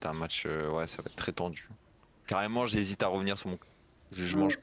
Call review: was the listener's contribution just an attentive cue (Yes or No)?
No